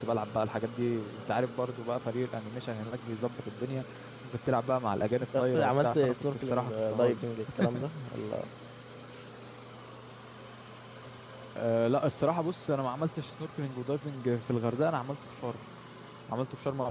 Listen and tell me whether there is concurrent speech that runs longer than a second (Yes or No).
Yes